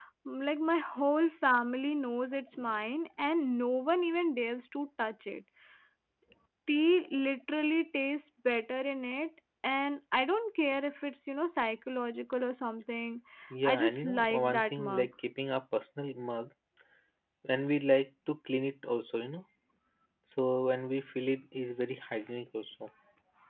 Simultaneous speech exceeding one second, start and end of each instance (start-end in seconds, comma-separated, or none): 13.7-15.1